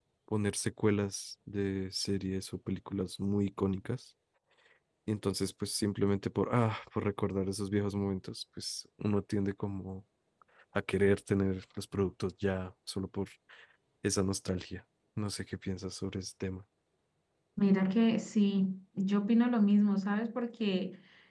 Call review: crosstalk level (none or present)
none